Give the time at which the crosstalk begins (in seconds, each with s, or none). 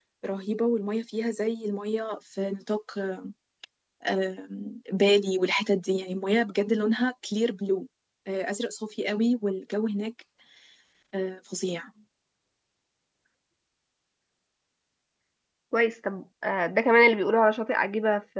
none